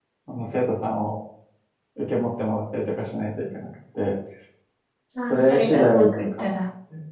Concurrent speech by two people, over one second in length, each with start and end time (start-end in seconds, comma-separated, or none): 5.3-6.5